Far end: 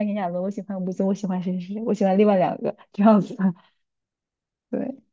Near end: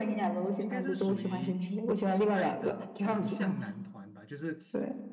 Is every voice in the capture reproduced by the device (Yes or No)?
No